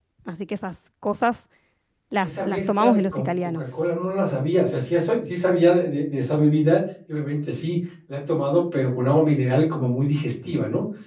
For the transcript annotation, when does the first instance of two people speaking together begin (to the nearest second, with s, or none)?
2 s